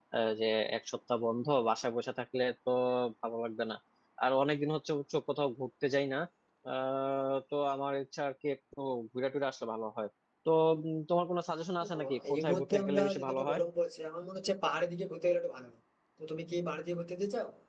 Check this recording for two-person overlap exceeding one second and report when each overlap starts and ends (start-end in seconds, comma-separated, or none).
11.8-13.6